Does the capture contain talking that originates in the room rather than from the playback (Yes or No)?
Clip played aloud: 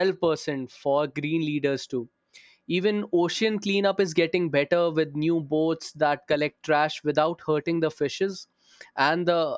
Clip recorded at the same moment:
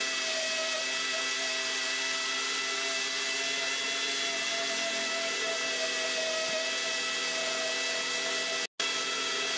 No